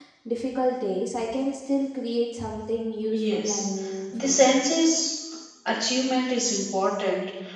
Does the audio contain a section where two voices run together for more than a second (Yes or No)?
No